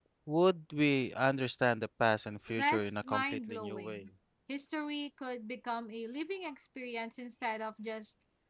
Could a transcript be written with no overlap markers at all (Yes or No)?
No